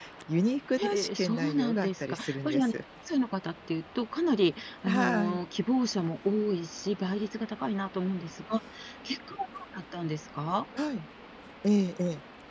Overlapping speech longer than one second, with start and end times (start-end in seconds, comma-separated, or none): 0.8-2.7